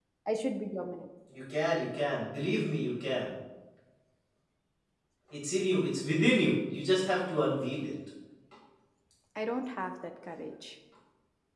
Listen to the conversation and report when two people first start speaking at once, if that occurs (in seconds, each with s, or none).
none